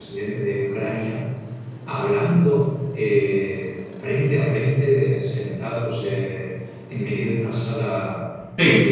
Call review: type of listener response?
listening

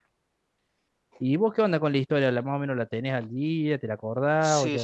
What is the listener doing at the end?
taking over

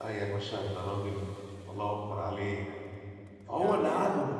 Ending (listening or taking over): listening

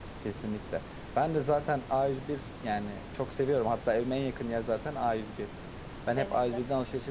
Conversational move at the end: listening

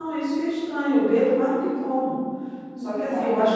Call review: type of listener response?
listening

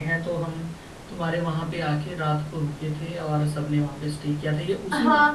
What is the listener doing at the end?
taking over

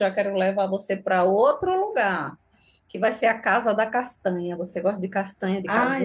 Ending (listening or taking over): taking over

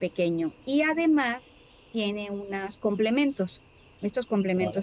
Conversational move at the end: listening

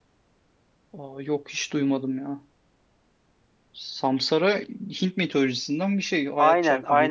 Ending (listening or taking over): taking over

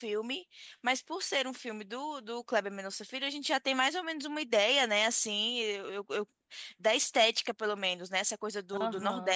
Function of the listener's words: listening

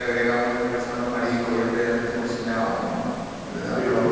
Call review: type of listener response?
listening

